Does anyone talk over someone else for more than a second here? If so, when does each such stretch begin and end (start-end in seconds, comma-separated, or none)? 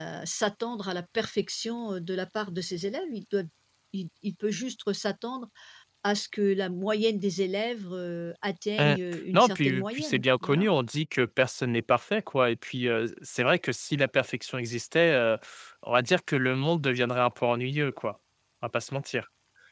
9.3-10.7